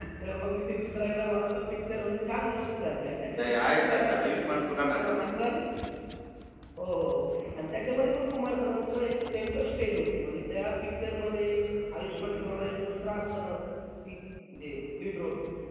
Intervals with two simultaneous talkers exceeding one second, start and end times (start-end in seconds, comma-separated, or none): 3.4-4.6